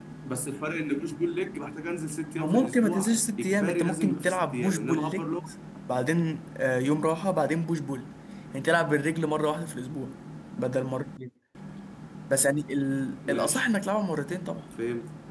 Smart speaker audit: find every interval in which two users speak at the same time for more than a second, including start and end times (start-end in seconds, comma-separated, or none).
2.4-5.3